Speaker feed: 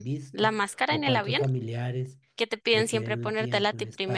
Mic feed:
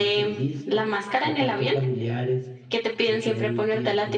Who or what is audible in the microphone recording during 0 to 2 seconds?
echo only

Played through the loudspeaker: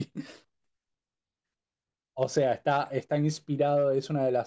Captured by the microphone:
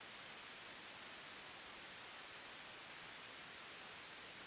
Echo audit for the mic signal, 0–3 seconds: neither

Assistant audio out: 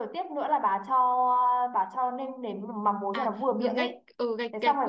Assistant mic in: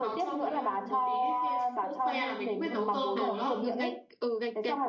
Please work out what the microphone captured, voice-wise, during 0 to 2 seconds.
both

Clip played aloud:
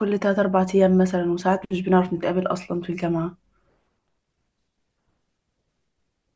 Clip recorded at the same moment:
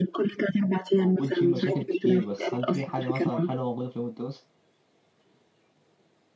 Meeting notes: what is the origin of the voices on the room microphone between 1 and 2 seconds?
both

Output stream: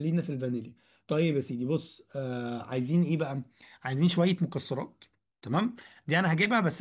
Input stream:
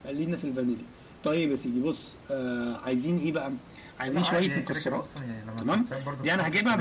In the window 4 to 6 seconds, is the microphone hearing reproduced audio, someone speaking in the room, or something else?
both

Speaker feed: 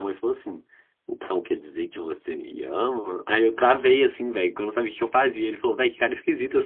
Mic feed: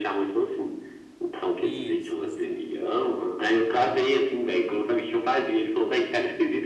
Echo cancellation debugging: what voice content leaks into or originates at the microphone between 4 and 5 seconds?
echo only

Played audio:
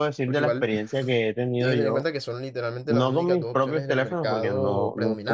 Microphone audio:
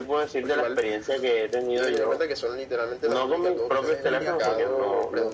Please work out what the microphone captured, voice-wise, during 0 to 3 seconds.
echo only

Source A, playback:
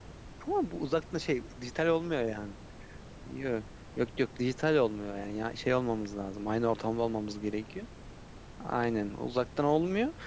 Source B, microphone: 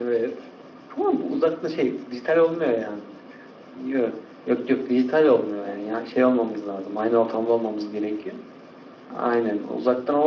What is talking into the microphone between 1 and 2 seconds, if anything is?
echo only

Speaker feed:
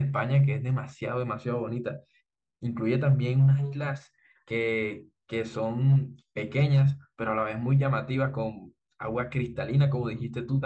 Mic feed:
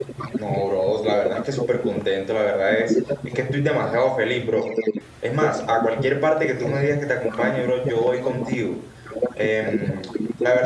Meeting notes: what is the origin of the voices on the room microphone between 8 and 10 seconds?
both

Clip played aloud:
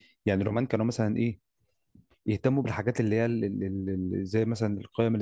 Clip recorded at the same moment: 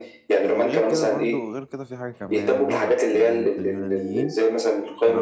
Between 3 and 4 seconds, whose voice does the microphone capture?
both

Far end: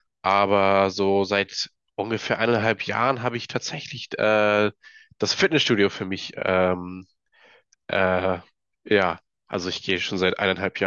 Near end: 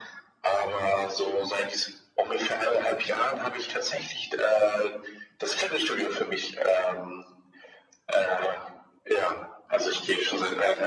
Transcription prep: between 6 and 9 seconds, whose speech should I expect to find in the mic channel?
echo only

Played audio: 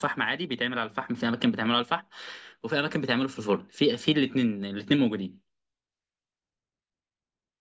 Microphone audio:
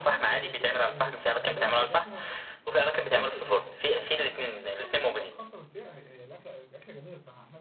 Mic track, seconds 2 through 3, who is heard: both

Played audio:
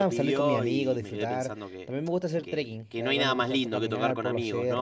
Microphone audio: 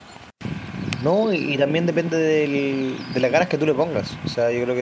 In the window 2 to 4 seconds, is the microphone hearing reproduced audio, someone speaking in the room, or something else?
user only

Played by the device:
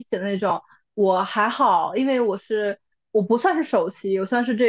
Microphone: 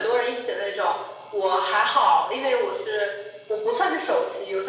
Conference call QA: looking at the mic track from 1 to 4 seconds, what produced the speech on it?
echo only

